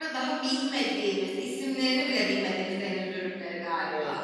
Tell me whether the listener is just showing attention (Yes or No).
No